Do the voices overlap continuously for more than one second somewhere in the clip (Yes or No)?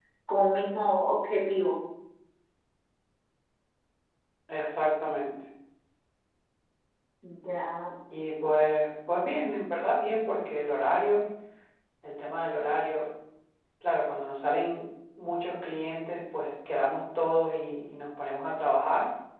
No